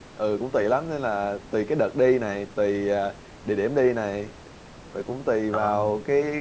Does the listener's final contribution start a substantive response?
No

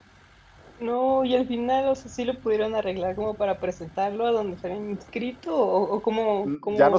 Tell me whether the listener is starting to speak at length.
Yes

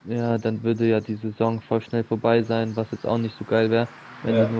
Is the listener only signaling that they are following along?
Yes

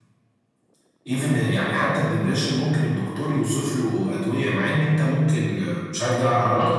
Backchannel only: No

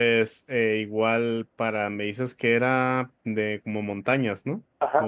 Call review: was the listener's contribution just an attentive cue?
No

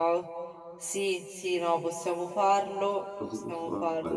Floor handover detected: Yes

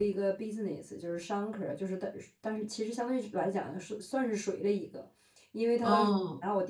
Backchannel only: Yes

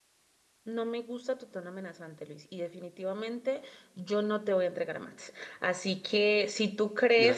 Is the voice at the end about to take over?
No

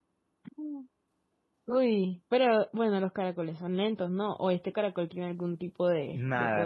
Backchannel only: No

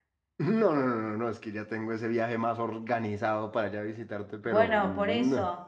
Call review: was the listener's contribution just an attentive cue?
No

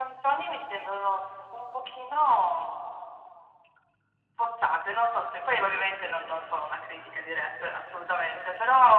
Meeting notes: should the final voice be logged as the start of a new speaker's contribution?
No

